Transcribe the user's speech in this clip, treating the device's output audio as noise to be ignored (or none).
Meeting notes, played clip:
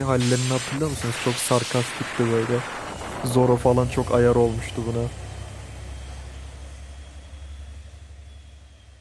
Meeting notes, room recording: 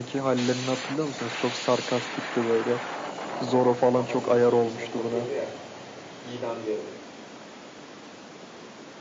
Kafasını şeyin içine sokuyordu ya idam yerinin.